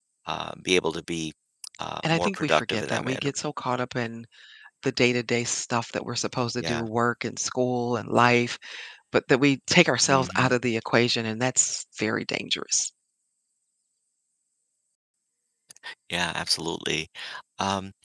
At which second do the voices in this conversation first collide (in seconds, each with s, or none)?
2.0 s